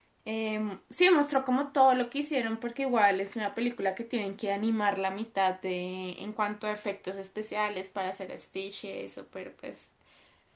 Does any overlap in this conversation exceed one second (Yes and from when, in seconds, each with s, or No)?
No